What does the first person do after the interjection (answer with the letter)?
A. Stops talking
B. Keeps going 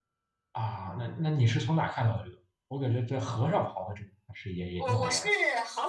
A